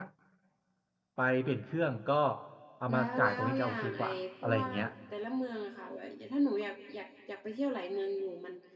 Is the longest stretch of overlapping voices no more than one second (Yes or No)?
No